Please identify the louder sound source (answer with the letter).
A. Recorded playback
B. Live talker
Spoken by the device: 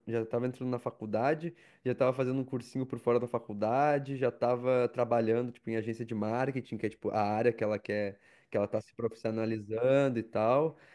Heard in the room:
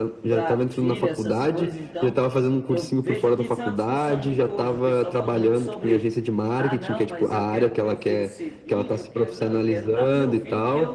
A